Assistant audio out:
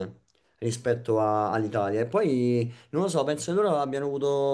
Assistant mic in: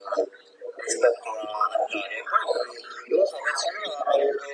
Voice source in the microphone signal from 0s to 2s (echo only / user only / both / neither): echo only